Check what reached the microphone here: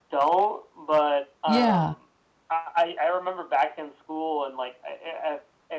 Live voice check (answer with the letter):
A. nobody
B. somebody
B